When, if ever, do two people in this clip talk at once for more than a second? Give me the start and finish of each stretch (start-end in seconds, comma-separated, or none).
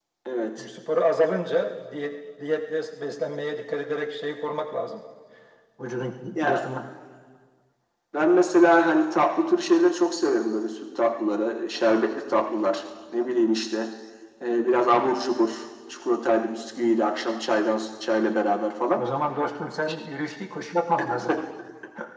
none